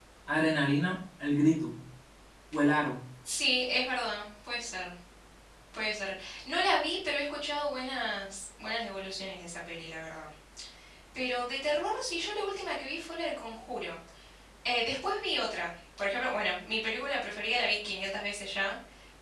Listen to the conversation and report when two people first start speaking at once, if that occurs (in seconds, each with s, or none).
none